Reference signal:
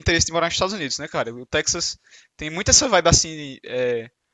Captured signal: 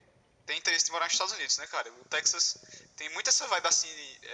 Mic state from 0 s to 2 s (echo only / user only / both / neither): echo only